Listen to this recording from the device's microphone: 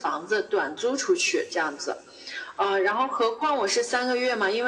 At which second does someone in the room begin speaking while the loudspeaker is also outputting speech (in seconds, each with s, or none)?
none